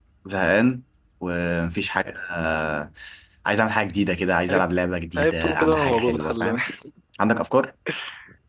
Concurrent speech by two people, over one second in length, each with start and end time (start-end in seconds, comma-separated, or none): 5.2-6.6